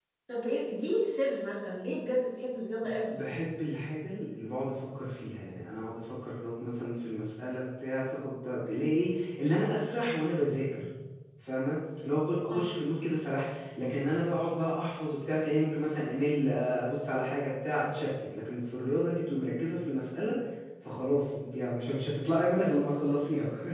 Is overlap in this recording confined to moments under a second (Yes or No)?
Yes